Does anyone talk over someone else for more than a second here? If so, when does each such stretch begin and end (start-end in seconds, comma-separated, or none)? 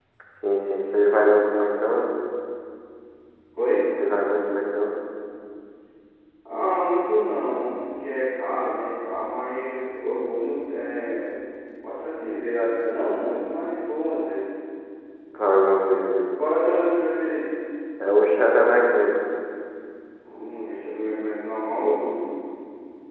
none